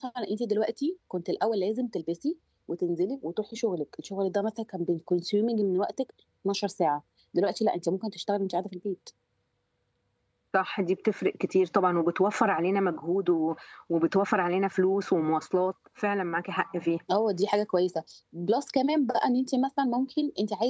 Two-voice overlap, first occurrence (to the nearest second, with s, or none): none